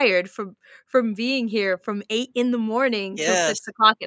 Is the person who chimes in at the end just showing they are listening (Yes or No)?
Yes